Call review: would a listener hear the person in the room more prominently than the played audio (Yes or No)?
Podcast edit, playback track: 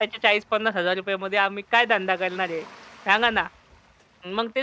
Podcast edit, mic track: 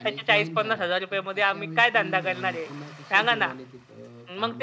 No